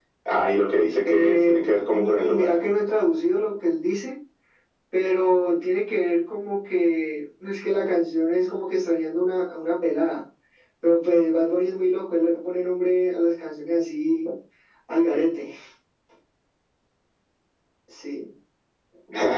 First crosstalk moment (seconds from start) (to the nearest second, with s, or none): 1 s